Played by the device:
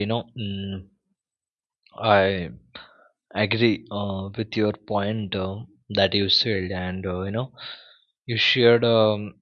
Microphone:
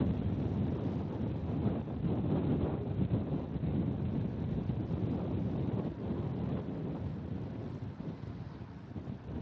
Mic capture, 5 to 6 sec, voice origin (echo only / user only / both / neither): neither